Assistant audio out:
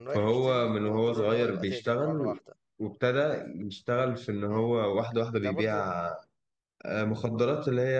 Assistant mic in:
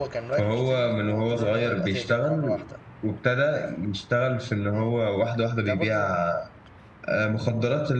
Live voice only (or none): none